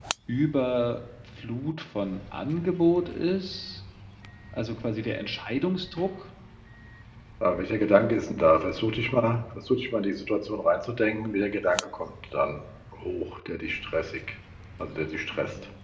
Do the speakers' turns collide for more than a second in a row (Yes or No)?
No